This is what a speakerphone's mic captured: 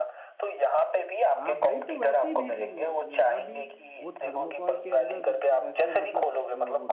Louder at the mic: echo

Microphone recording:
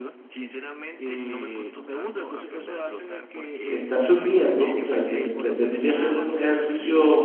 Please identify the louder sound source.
user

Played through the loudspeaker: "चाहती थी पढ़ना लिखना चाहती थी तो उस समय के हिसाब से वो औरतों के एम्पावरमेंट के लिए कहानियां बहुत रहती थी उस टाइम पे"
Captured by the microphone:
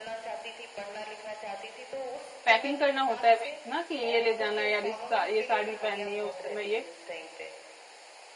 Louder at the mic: user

